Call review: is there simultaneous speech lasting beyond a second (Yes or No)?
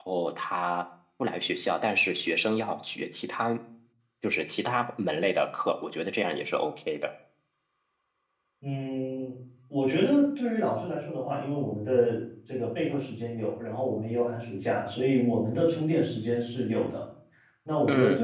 No